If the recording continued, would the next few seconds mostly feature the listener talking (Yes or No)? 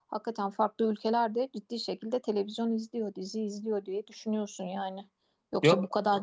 No